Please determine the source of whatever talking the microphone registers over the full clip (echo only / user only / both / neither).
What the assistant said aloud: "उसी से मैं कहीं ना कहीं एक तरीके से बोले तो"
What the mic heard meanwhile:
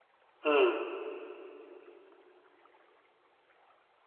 user only